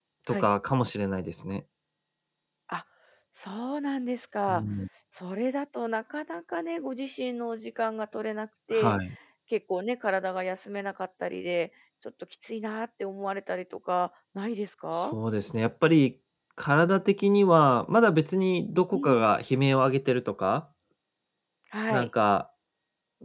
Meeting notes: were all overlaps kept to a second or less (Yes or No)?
Yes